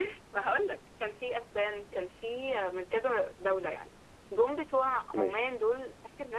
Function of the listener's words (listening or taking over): listening